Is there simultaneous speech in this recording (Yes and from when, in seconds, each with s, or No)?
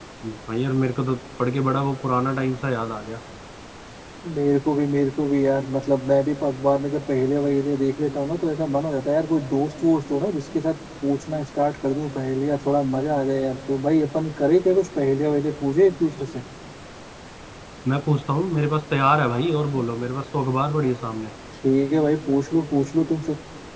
No